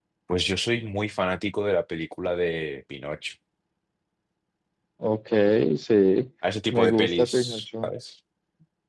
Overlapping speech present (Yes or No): Yes